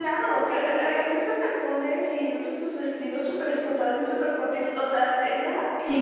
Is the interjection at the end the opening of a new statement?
Yes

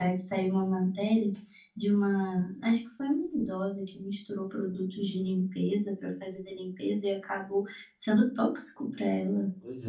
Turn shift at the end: No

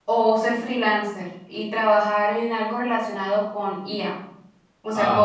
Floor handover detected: No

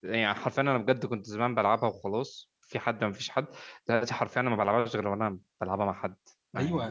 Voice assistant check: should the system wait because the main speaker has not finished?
No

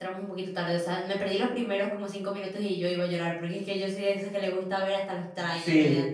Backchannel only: No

